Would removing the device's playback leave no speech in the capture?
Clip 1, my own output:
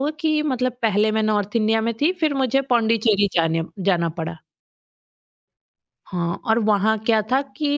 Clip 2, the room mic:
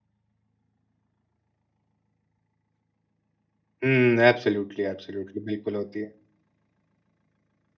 No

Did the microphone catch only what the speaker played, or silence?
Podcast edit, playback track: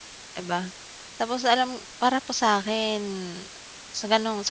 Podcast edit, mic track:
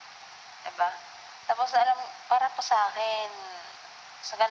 Yes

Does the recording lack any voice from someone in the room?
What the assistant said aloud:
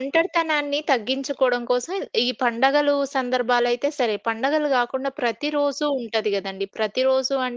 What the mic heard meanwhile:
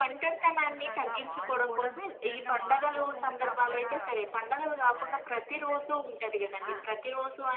No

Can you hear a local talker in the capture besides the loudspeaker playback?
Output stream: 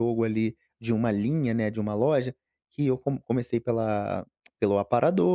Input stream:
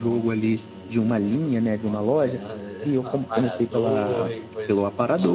Yes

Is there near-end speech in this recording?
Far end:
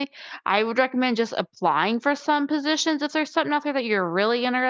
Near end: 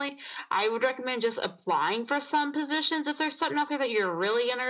No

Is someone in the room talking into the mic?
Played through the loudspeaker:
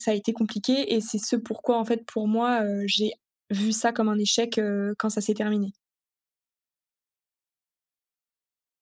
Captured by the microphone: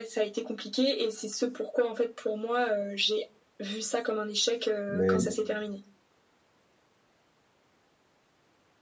Yes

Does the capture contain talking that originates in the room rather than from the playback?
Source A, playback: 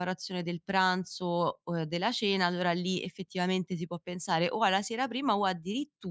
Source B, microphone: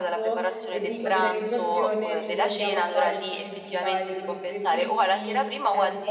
Yes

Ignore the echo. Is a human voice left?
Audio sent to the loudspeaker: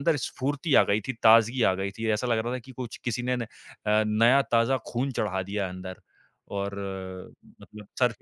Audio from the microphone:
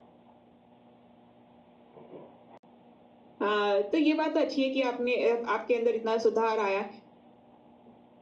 Yes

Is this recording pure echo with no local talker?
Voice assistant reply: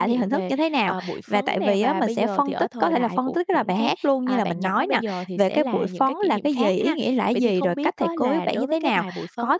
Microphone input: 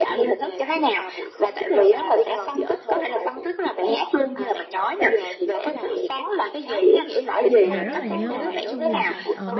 No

